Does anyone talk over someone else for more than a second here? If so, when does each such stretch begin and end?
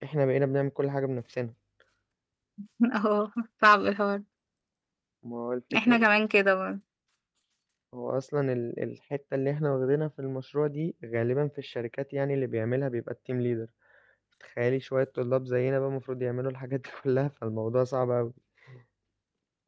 none

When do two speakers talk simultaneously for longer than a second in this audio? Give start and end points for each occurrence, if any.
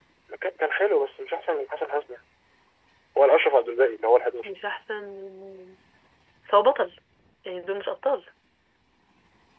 none

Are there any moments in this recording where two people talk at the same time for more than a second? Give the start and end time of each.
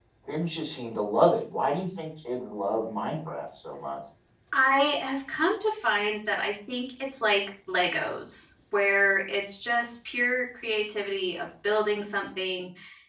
none

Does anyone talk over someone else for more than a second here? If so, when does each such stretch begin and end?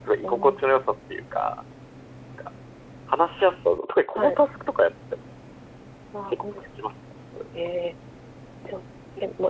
none

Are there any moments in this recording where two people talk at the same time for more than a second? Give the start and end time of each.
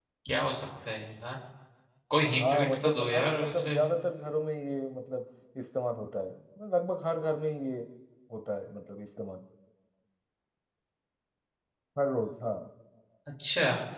2.4-3.8

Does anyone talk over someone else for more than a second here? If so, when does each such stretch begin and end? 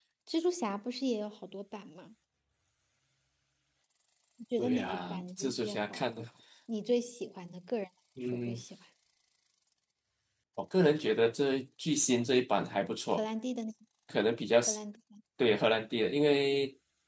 4.6-6.2

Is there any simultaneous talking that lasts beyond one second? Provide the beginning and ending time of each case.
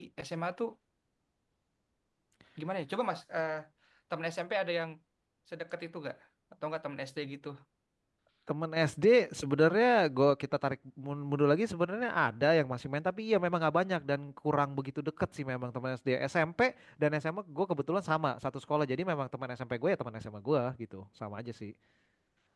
none

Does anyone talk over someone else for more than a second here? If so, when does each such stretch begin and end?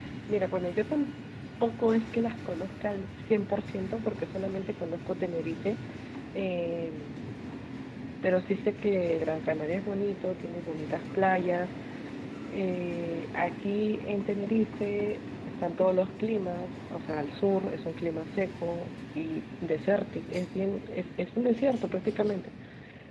none

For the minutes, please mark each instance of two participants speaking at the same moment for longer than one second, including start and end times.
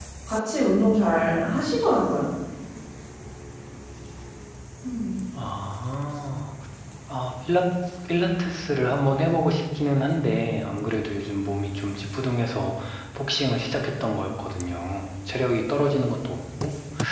none

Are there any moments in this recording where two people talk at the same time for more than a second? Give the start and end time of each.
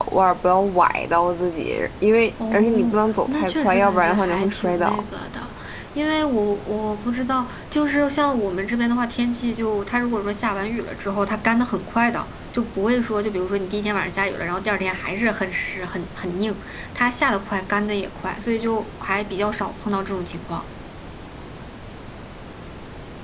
2.5-5.0

